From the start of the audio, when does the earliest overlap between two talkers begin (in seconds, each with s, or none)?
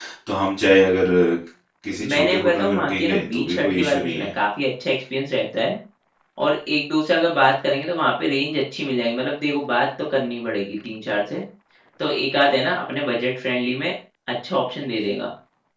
2.1 s